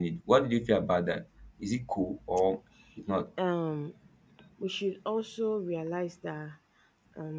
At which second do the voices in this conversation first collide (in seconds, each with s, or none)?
none